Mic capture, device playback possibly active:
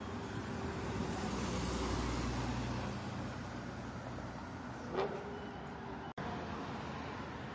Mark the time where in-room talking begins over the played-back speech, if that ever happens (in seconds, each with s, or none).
none